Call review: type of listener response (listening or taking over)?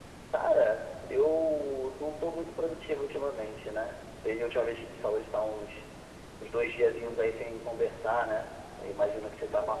listening